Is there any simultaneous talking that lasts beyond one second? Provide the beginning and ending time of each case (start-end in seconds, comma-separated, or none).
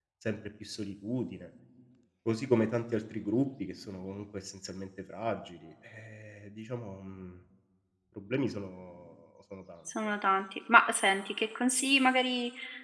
none